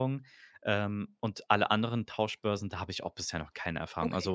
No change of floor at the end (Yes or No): Yes